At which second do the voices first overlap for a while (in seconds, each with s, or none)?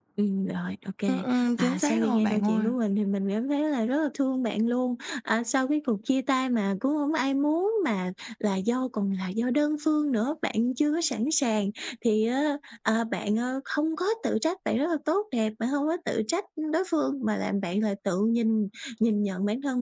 1.1 s